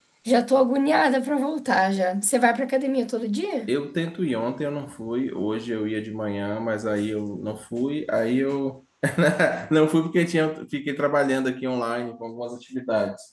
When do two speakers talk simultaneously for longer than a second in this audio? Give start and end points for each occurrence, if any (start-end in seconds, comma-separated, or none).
none